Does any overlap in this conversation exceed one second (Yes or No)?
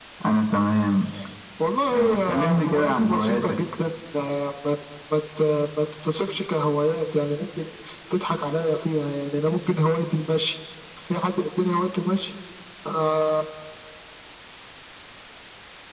Yes